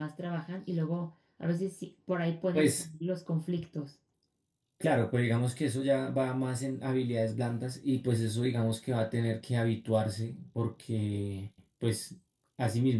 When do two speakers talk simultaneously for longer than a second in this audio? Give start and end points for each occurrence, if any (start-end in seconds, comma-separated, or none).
none